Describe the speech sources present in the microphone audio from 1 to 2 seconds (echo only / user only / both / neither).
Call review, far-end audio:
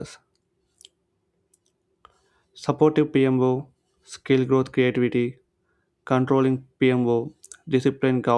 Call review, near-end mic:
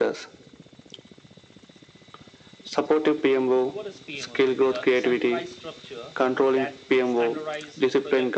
neither